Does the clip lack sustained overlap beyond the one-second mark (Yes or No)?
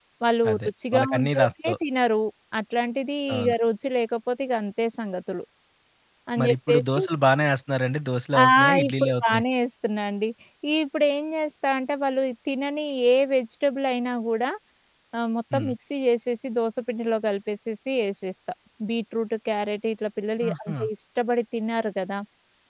No